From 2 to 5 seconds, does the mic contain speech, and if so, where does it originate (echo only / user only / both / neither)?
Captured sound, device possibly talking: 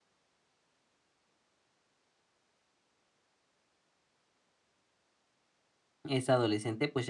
neither